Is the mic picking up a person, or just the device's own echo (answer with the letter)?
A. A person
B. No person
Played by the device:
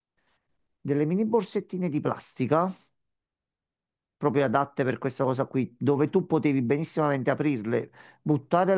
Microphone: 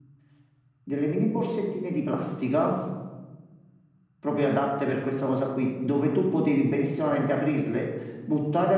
B